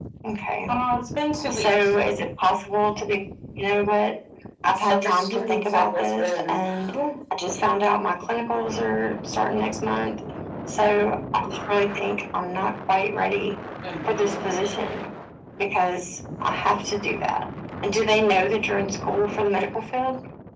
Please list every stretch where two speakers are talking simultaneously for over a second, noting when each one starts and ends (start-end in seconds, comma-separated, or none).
4.8-6.6